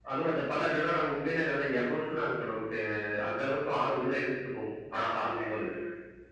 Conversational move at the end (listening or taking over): taking over